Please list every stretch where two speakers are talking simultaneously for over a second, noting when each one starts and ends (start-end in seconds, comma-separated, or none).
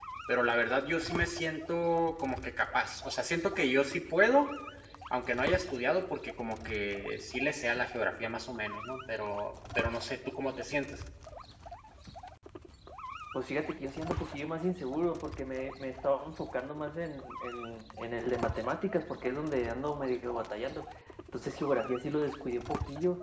none